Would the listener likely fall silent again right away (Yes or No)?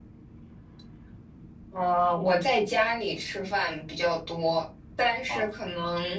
Yes